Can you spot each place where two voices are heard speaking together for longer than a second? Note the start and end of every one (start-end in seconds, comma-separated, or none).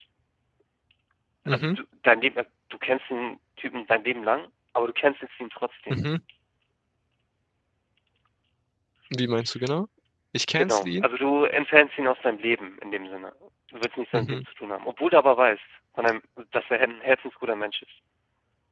none